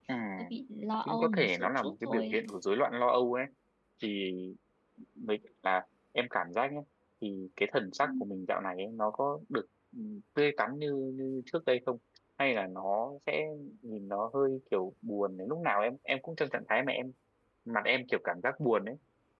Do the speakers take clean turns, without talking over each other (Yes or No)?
No